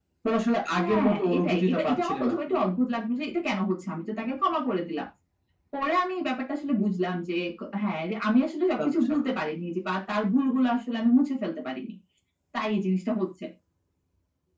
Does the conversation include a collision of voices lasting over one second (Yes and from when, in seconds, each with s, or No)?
Yes, from 0.7 s